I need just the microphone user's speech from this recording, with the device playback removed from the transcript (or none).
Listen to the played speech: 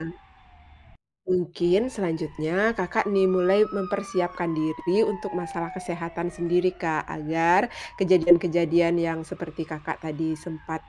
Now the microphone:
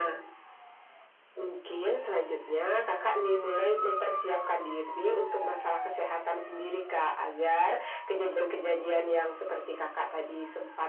none